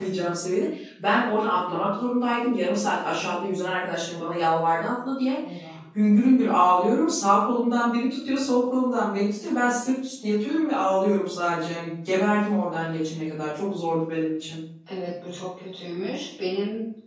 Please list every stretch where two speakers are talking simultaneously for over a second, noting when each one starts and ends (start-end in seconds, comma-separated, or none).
none